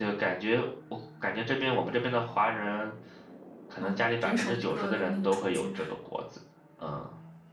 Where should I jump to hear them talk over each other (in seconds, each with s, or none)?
3.8 s